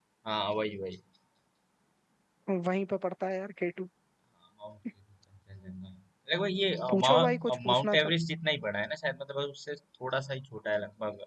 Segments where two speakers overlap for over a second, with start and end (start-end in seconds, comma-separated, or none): 6.9-8.1